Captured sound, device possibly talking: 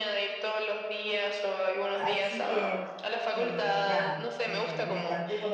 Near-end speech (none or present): present